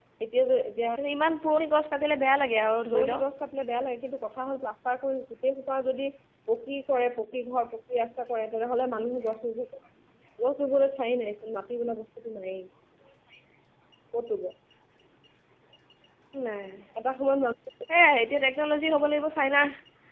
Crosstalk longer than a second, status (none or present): none